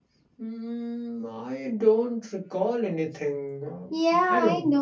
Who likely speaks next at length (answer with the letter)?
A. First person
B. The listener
B